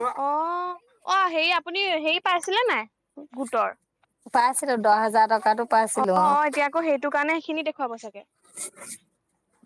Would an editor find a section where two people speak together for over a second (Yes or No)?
No